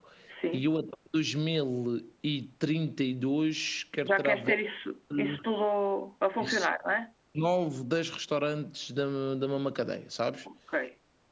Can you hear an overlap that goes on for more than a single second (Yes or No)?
No